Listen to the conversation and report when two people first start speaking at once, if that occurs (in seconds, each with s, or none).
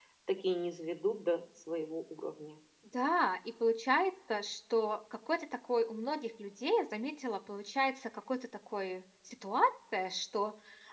none